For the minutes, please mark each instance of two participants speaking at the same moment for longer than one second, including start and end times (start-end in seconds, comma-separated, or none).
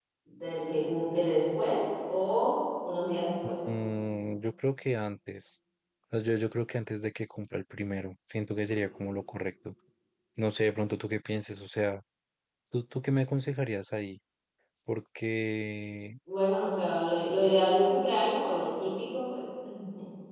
none